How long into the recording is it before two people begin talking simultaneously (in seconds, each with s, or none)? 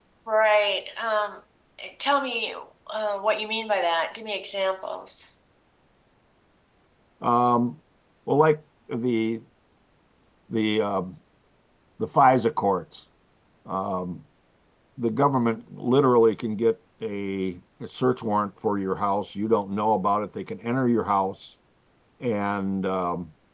none